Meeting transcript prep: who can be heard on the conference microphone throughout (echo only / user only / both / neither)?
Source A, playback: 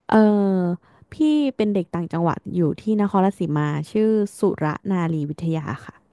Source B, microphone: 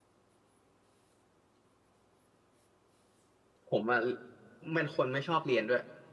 user only